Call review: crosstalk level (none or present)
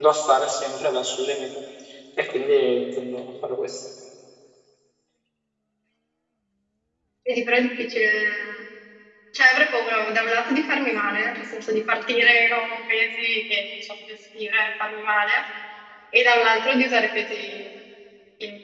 none